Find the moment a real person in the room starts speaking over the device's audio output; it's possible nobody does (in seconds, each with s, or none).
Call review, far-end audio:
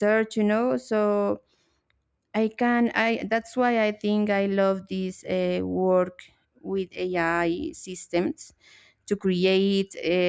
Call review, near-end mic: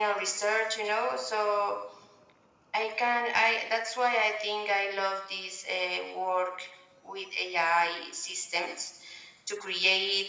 none